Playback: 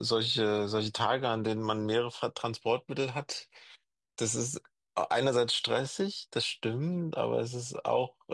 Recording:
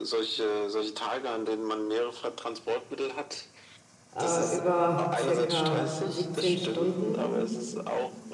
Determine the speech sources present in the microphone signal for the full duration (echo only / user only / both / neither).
both